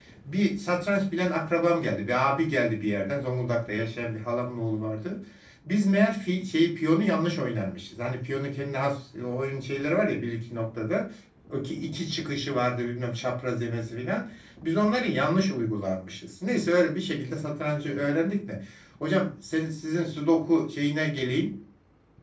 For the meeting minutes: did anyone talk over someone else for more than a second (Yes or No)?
No